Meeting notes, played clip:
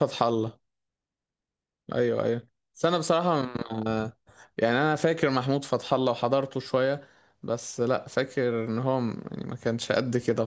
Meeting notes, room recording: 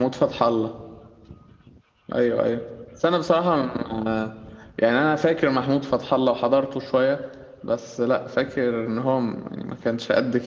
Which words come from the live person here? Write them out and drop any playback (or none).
none